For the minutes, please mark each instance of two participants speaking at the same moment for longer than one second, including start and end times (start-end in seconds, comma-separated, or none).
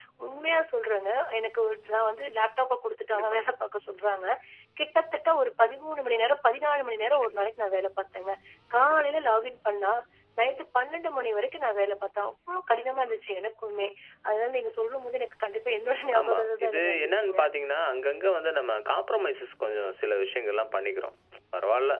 16.2-17.4